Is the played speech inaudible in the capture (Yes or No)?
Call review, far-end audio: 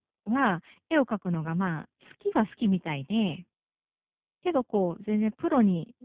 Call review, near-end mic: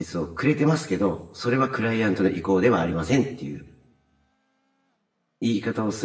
Yes